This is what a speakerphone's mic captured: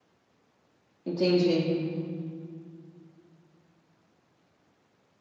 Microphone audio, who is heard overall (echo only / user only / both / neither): user only